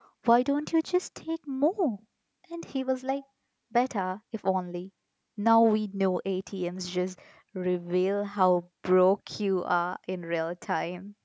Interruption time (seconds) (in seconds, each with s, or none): none